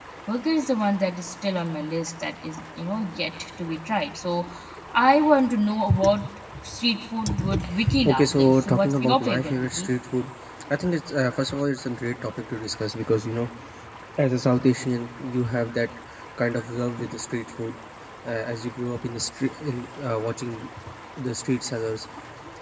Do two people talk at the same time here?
Yes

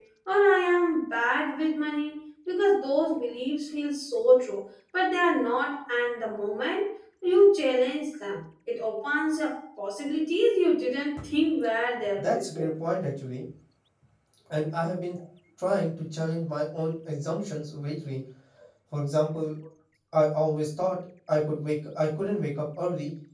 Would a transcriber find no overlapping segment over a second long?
Yes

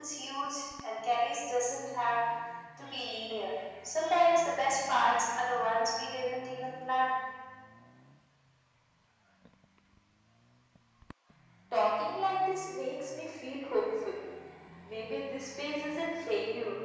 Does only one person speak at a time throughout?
Yes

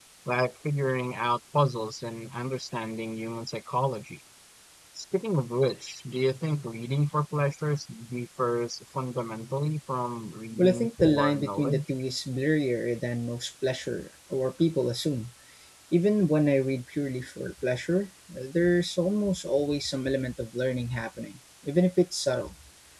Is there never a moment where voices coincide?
No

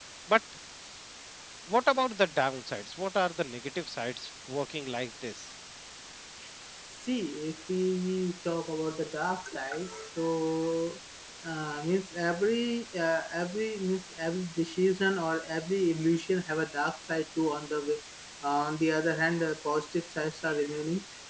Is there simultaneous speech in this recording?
No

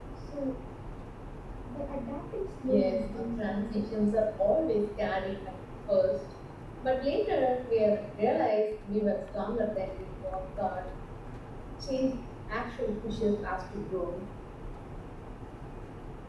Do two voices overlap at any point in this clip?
Yes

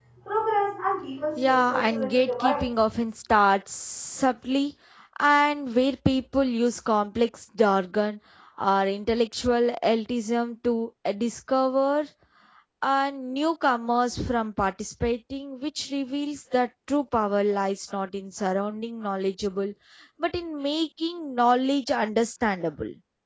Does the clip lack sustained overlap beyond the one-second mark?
No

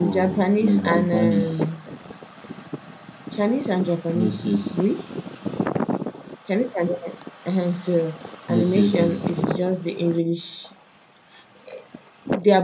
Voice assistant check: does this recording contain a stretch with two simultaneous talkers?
Yes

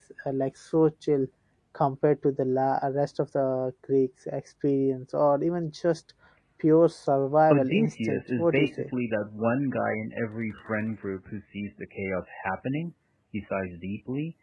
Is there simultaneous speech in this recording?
Yes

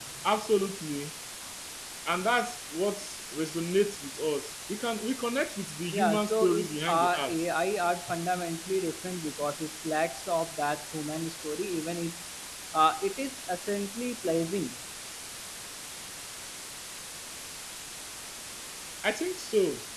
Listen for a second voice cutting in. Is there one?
Yes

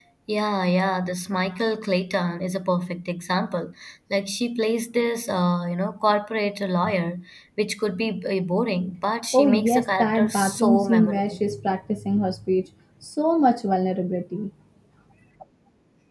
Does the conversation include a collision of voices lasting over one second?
Yes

